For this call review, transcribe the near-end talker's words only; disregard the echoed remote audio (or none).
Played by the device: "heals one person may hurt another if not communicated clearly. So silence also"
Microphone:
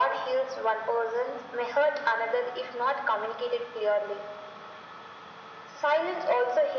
none